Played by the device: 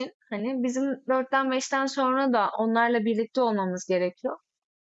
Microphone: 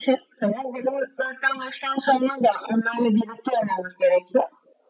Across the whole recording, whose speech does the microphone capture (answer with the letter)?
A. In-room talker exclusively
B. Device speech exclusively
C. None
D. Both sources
B